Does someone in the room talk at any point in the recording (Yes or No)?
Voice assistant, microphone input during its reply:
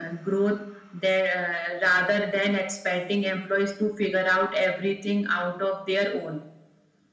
No